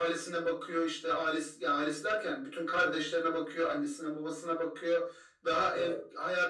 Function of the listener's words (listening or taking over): listening